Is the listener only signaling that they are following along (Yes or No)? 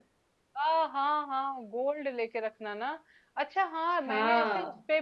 Yes